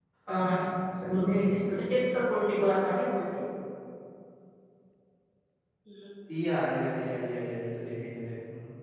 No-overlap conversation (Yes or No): Yes